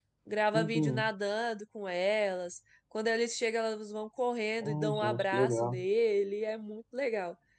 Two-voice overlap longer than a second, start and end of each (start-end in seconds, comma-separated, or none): 4.6-5.8